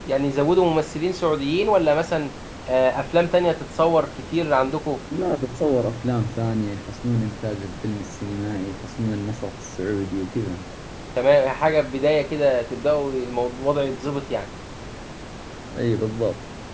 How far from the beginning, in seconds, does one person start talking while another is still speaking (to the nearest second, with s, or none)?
none